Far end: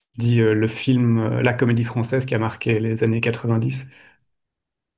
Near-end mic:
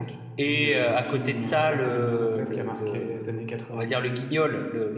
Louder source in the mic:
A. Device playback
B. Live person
B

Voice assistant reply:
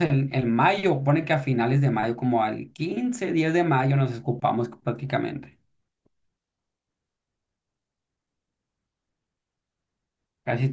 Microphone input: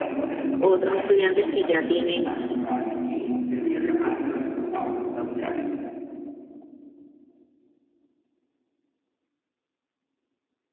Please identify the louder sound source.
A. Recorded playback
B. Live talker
B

